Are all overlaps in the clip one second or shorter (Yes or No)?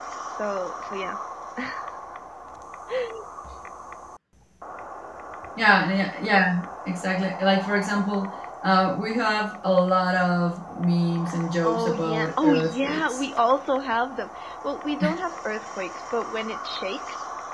No